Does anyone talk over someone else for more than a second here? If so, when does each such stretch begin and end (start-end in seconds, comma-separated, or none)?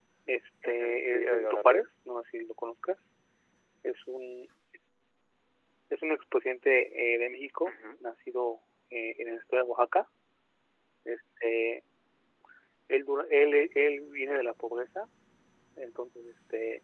0.6-1.9